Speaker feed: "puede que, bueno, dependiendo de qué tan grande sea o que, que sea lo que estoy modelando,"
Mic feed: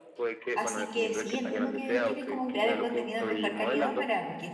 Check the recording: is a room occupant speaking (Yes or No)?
Yes